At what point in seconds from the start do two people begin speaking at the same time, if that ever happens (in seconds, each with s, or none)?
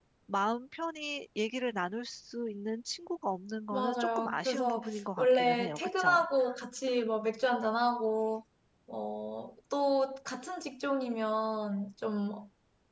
3.7 s